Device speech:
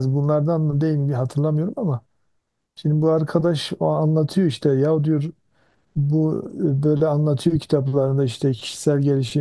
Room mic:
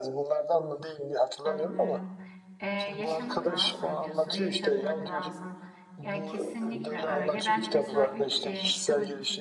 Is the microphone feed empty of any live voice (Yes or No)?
No